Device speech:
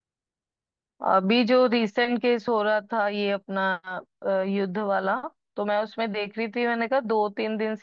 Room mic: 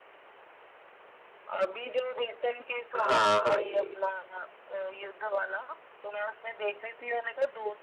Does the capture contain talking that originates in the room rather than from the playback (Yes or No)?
Yes